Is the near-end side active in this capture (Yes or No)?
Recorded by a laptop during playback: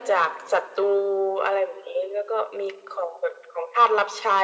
No